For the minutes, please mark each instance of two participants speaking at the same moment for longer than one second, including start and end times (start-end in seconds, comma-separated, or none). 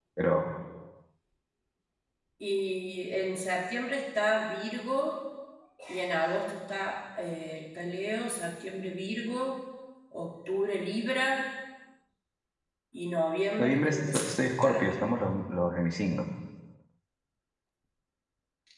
13.6-15.1